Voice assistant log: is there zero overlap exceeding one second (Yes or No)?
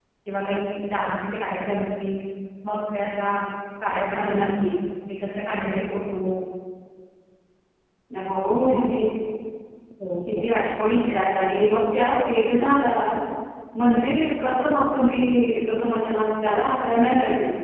Yes